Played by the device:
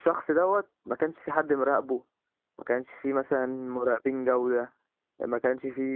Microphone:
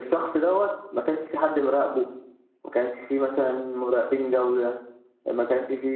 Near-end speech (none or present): none